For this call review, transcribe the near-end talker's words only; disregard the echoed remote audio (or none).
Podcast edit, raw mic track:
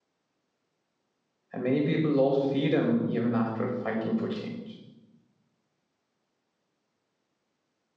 And many people lost freedom even after fighting for change.